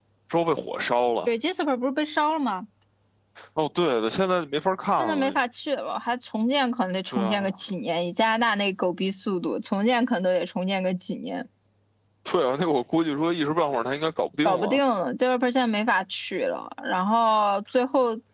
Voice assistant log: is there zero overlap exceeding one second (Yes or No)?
Yes